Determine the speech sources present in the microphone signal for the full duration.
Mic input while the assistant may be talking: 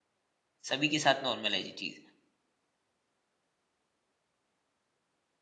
user only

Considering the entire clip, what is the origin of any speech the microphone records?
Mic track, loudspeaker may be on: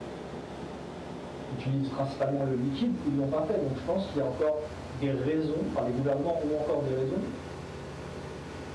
user only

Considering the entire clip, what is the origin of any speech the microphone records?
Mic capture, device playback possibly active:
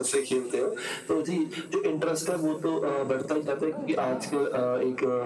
both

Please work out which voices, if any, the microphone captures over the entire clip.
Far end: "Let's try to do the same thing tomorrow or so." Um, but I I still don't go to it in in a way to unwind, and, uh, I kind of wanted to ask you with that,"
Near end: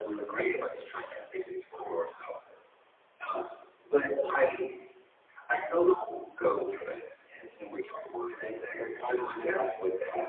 echo only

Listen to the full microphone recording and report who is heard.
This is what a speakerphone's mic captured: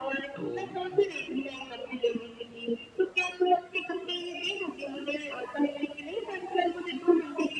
both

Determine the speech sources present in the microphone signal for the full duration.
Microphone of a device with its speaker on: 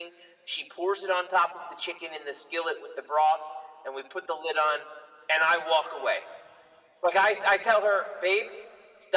echo only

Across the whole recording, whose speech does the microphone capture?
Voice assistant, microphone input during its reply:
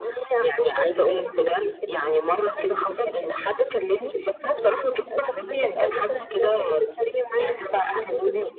echo only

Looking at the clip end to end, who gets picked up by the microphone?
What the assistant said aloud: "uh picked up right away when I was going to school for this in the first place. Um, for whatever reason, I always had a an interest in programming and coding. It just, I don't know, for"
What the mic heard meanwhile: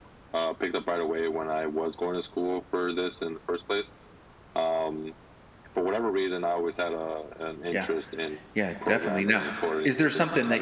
both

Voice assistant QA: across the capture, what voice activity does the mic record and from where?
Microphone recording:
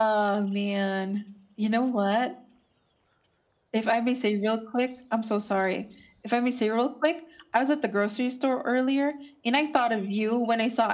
echo only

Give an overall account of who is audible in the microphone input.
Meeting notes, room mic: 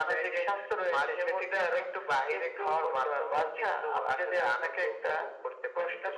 echo only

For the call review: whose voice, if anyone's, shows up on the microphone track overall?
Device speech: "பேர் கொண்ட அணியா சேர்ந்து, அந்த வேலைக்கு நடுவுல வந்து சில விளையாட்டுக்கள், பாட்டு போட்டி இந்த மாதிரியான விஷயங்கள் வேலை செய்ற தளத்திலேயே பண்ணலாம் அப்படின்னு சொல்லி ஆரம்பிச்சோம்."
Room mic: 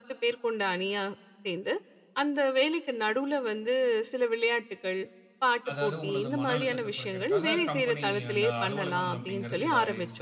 both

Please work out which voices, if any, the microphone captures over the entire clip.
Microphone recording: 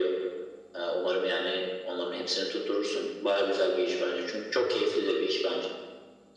echo only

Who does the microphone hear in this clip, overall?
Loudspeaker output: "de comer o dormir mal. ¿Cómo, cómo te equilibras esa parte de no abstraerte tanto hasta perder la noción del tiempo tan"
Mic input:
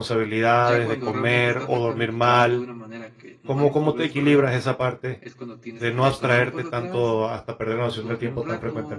both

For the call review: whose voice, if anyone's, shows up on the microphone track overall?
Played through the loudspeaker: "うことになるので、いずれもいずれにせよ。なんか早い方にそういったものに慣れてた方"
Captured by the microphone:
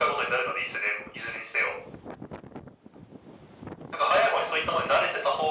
echo only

